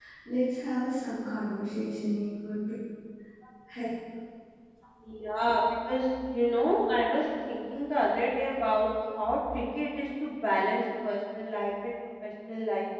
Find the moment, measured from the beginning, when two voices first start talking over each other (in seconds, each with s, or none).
none